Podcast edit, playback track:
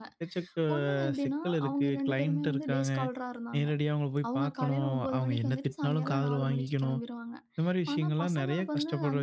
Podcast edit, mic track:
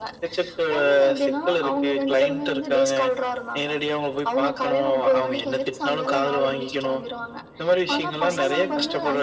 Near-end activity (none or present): present